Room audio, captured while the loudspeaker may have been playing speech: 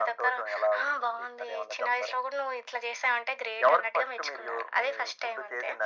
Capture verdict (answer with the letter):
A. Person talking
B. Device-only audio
B